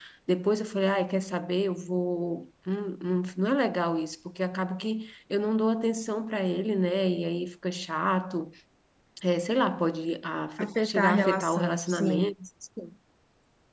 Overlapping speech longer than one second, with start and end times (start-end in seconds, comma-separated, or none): 10.6-12.3